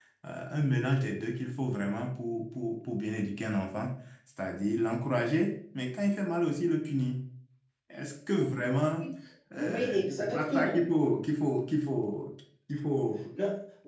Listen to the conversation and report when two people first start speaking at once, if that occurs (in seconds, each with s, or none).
9.6 s